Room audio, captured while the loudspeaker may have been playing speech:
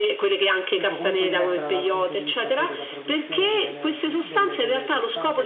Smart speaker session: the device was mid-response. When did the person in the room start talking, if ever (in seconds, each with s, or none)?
0.7 s